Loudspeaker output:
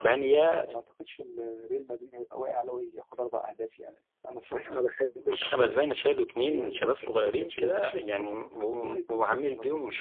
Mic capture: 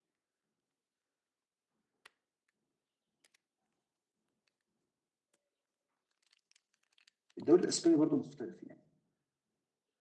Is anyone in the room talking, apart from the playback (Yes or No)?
Yes